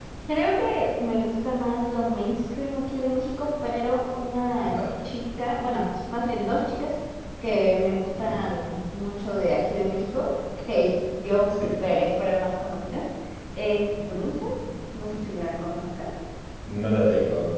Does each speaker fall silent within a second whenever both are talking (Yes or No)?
Yes